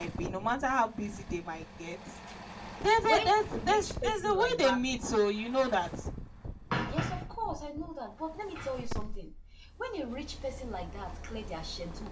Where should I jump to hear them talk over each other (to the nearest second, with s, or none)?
3 s